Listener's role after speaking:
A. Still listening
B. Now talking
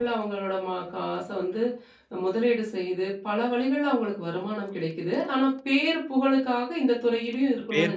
B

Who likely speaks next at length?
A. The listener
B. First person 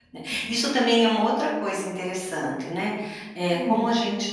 B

